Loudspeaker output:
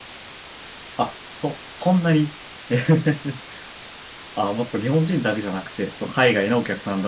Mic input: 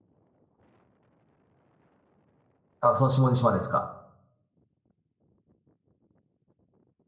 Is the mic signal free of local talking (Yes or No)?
No